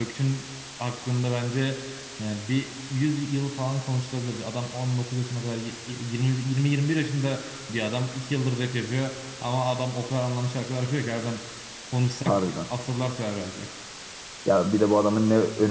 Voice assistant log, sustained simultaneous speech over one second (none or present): none